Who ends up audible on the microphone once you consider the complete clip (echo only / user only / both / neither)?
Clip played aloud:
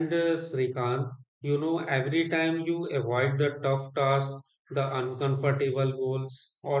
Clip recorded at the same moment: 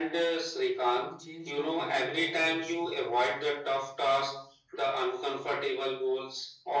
both